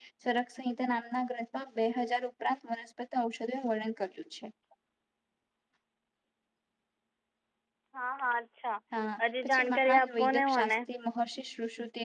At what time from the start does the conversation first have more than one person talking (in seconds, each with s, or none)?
9.4 s